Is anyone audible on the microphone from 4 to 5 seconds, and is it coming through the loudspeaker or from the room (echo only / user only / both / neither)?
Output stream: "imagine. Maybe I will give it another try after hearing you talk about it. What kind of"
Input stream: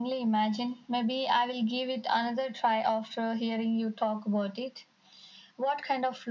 echo only